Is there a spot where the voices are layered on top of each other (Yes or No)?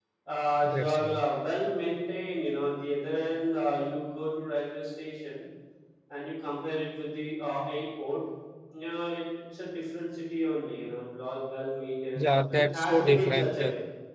Yes